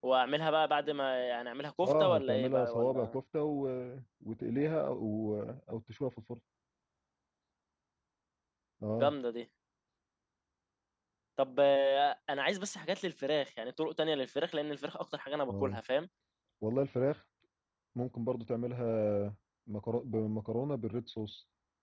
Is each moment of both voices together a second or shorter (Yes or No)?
No